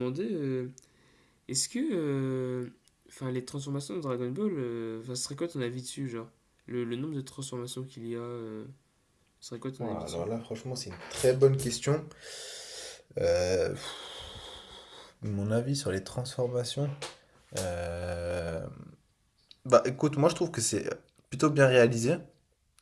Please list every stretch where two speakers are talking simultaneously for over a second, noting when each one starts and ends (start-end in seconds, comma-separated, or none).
none